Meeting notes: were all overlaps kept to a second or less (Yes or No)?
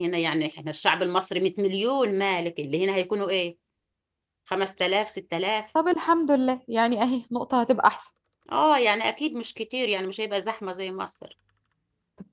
Yes